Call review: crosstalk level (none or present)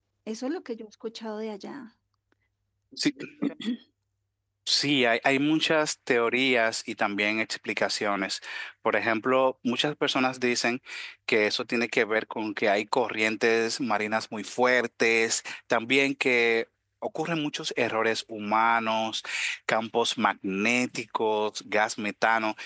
none